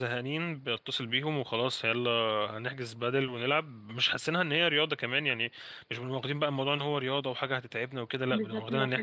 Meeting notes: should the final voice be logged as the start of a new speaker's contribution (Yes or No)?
Yes